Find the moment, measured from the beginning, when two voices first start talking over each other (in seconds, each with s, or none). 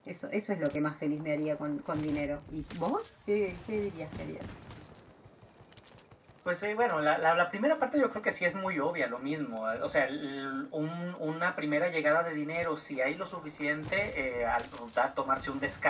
none